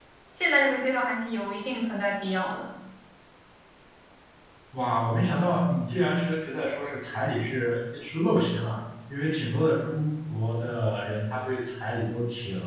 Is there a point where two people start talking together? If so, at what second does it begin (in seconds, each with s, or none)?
none